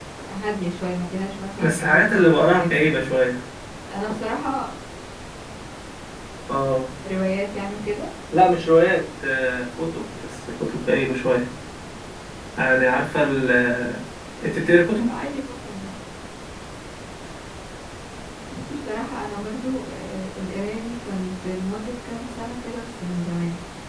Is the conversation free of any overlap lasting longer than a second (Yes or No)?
No